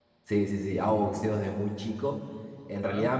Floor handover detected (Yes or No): No